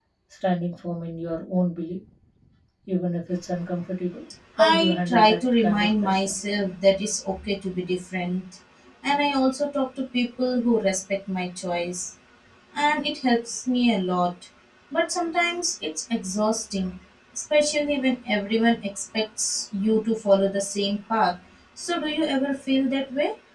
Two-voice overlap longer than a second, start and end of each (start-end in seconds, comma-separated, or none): 4.6-6.3